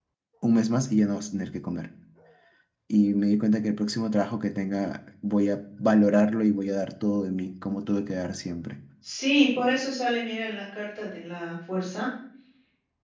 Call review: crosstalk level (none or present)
none